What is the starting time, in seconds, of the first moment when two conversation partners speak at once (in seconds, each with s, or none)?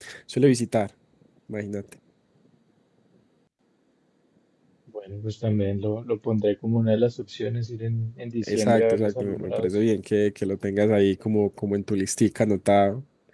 8.4 s